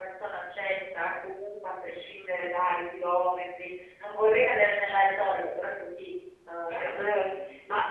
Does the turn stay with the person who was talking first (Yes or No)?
No